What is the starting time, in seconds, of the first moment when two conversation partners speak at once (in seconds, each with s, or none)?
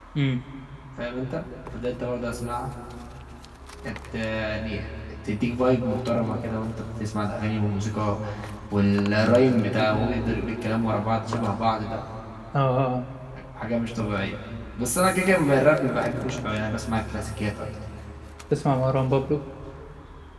none